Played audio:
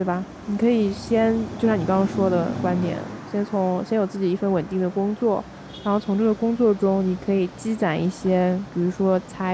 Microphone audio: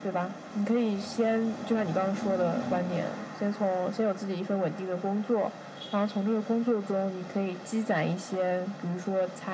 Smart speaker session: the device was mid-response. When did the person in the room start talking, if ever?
none

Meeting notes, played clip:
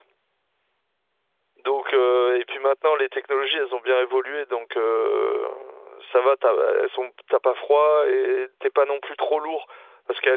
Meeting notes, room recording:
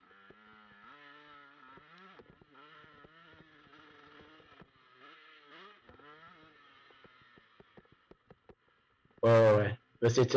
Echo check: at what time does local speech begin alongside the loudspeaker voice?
9 s

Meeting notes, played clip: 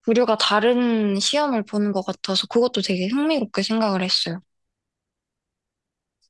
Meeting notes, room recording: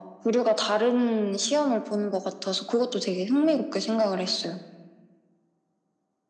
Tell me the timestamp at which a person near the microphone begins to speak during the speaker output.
none

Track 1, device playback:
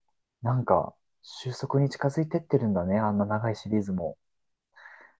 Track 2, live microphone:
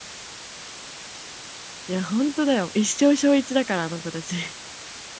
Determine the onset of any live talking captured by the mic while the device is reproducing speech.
2 s

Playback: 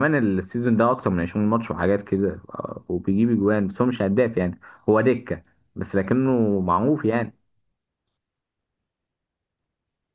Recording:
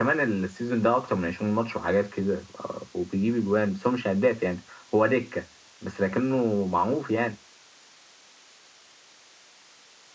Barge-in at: none

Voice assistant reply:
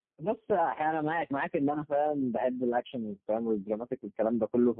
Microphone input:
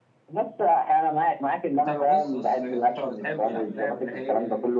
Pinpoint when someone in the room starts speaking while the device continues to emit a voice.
2 s

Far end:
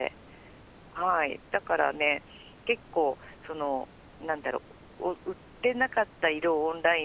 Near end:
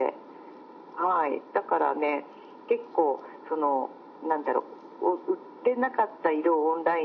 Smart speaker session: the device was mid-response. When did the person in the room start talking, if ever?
none

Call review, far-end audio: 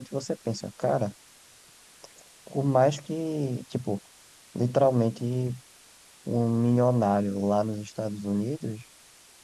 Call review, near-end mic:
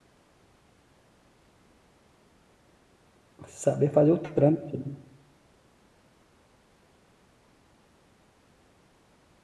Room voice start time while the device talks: 3 s

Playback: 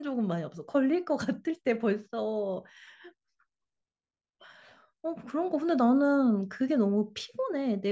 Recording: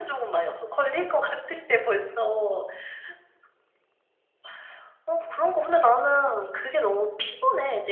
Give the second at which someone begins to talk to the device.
none

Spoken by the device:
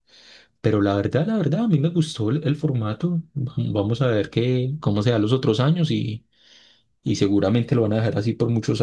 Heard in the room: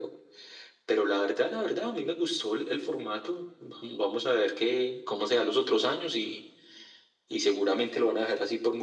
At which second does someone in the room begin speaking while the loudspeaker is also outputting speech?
none

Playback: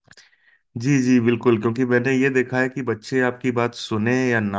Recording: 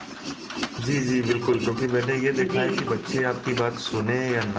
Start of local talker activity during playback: 2 s

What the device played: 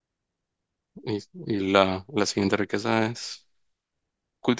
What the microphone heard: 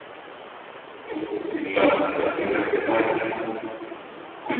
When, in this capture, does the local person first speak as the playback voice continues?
none

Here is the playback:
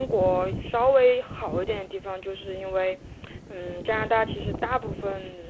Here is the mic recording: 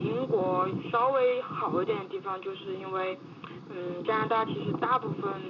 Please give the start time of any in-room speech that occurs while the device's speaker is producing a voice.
none

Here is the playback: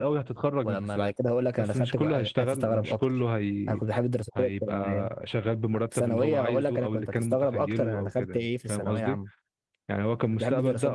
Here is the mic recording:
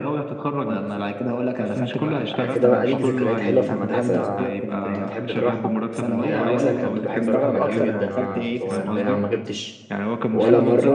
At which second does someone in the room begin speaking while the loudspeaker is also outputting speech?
2 s

